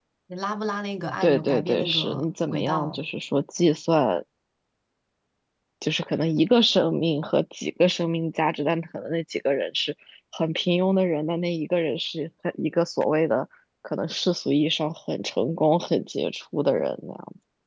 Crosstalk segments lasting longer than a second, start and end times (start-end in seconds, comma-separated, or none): 1.2-3.0